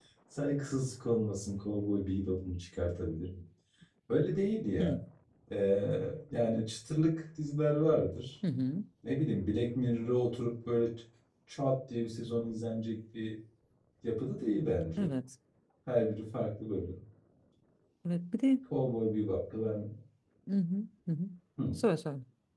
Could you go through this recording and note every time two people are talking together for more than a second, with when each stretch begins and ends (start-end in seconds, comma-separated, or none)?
none